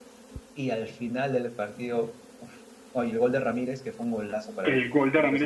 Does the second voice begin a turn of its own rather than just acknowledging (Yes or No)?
Yes